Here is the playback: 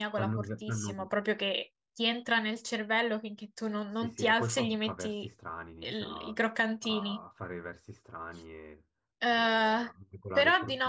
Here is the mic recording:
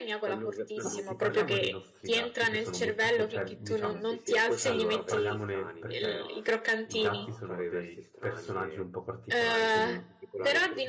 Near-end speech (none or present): present